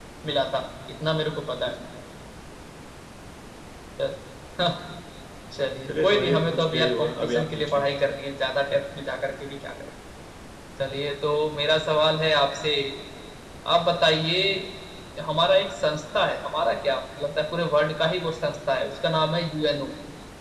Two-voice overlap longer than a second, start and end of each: 5.9-7.8

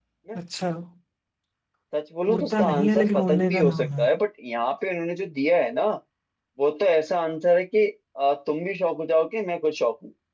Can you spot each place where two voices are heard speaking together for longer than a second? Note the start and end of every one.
2.3-4.1

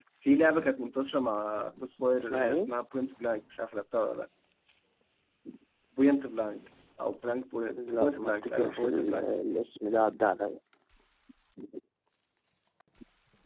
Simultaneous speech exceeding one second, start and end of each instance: 8.0-9.2

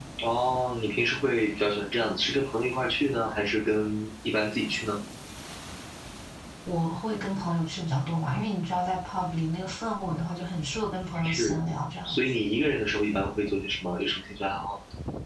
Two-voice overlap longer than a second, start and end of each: none

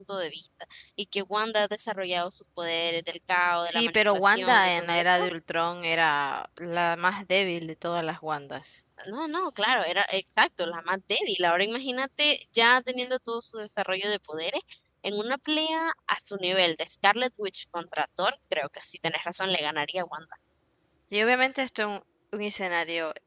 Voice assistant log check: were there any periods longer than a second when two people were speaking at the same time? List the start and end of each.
3.7-5.3

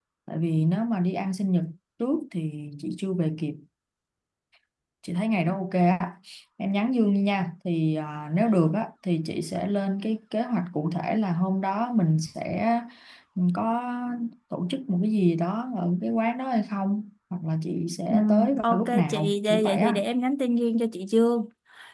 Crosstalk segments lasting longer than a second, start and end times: 18.1-20.0

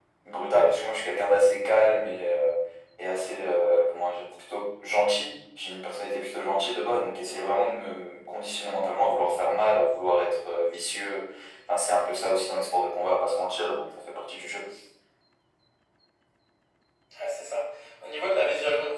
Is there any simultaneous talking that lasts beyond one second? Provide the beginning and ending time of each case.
none

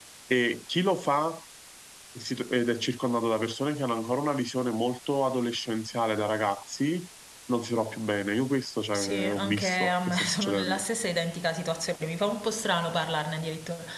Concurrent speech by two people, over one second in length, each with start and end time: 8.9-10.8

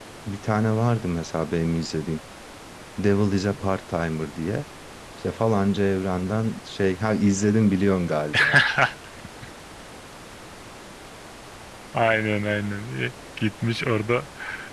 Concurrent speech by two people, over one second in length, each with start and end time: none

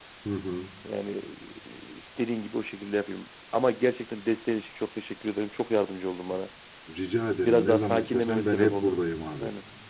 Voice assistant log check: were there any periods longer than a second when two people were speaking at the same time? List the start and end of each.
7.5-8.9

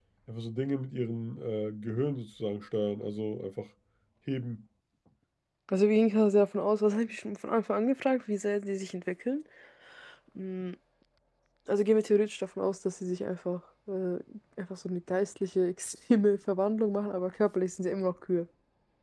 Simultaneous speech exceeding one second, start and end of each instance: none

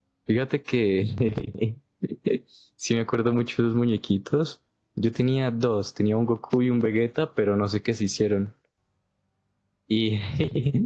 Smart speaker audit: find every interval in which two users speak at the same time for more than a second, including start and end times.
none

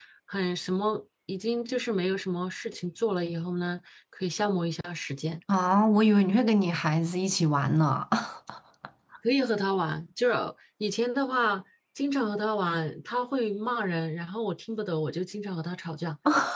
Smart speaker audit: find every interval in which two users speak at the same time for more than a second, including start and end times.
none

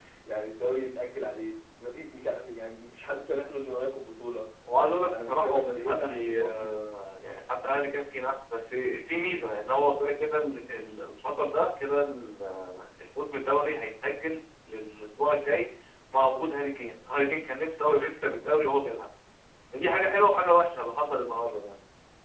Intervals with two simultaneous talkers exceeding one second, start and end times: 5.3-6.8

